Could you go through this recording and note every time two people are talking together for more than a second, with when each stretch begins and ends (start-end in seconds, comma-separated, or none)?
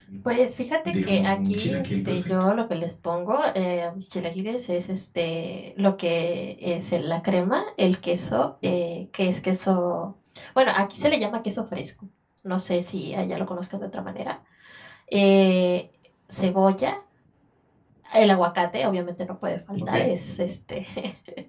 1.0-2.3